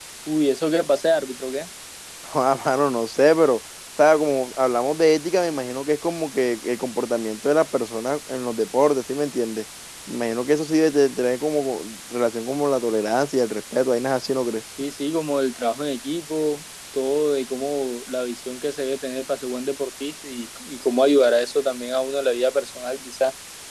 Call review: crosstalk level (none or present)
none